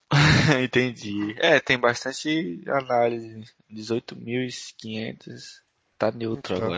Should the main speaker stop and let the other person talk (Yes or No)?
No